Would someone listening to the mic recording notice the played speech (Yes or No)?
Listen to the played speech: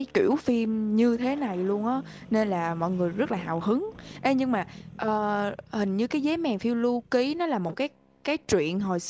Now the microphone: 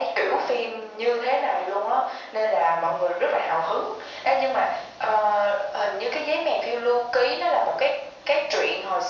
Yes